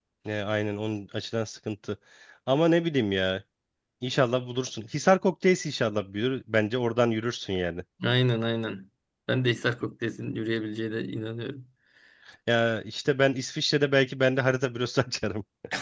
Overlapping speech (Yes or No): No